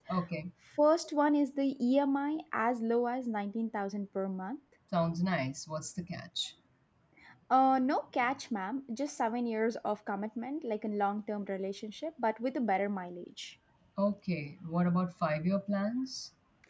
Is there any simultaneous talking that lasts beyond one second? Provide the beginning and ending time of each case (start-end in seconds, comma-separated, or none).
none